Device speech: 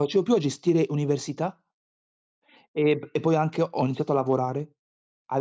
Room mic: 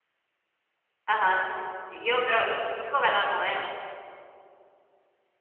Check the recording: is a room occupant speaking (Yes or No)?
Yes